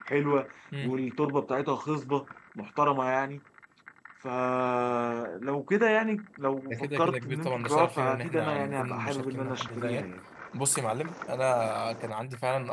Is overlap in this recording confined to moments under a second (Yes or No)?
No